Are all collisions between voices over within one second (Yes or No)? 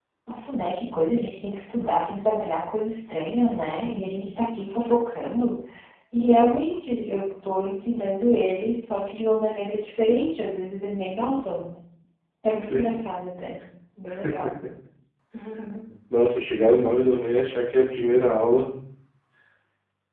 Yes